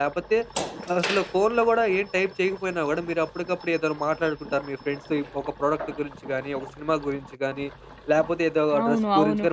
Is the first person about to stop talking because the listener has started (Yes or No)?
No